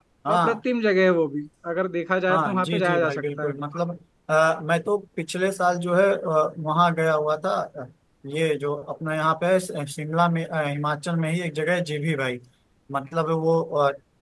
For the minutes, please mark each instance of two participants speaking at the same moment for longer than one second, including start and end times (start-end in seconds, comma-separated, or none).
2.3-3.5